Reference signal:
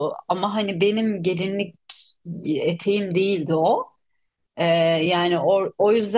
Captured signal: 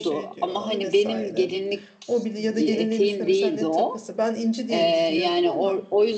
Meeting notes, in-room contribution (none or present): present